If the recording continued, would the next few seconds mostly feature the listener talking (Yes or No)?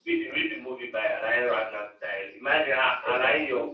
No